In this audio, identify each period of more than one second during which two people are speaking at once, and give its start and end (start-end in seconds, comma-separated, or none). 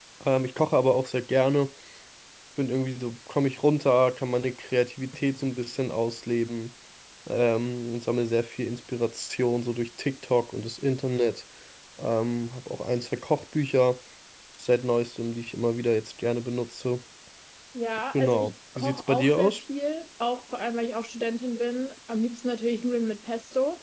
18.1-19.6